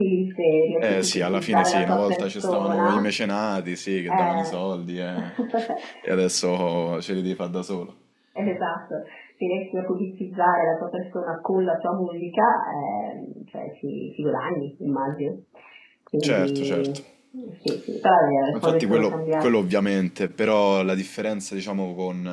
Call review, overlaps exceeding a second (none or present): present